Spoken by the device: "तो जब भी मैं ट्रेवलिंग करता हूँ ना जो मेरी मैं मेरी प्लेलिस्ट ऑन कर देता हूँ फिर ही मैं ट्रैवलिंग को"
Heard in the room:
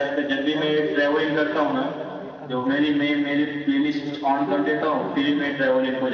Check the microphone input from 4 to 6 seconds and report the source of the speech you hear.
both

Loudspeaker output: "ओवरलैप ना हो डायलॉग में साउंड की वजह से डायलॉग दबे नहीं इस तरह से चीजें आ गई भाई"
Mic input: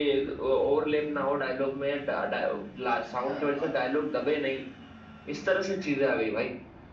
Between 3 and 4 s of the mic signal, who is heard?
both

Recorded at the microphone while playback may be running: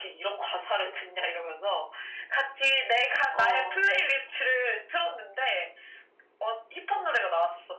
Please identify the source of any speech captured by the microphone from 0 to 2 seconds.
echo only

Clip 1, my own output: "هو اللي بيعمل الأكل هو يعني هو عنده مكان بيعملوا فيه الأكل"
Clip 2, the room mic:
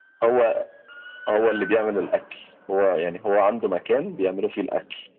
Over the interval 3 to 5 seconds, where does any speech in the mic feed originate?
echo only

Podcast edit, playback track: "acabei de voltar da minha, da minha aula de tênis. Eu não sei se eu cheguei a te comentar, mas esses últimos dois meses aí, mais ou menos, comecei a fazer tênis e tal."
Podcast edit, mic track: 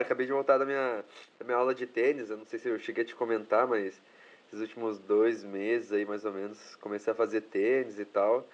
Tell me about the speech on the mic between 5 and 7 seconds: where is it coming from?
echo only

